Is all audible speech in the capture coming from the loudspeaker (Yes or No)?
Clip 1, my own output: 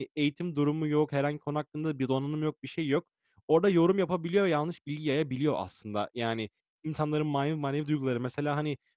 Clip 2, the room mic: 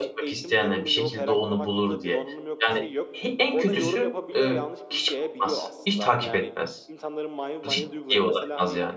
No